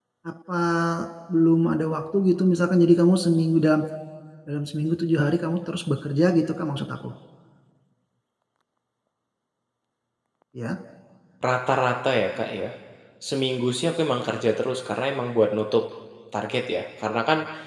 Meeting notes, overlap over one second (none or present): none